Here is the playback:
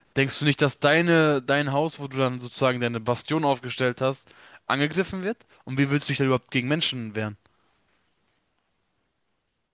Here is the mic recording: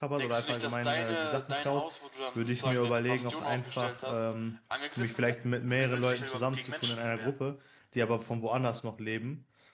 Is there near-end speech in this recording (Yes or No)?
Yes